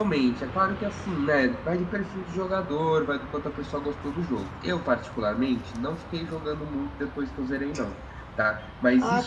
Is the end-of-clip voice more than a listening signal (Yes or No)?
Yes